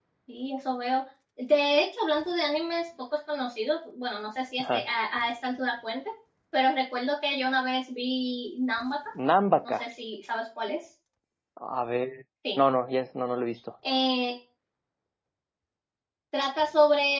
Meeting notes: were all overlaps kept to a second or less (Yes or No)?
Yes